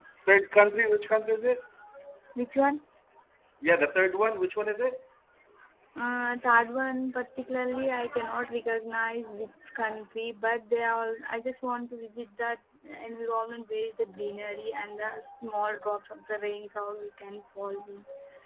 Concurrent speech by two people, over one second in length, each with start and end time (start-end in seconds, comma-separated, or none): none